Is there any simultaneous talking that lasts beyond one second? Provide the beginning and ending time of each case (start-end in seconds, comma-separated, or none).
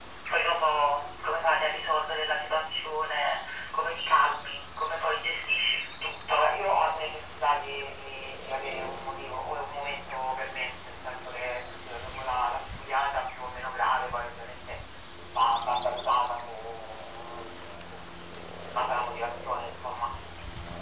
none